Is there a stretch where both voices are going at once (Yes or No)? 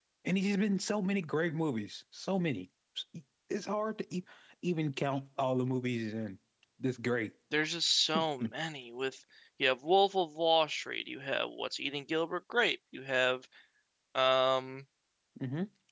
No